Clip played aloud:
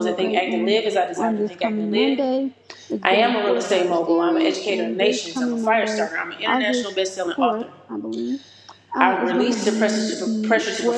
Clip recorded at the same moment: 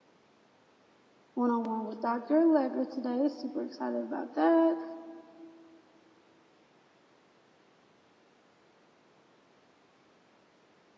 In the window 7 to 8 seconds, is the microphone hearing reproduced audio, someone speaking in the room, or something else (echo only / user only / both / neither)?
neither